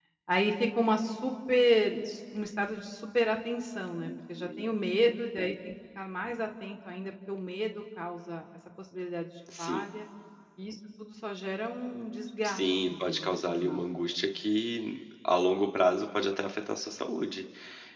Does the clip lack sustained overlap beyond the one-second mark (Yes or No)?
No